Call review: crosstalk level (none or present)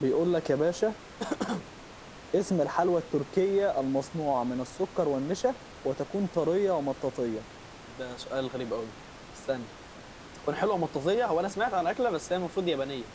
none